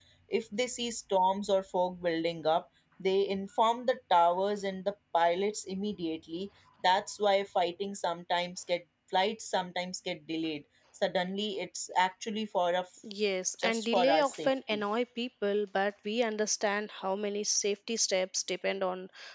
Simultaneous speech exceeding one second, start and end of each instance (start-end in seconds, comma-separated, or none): 13.6-14.8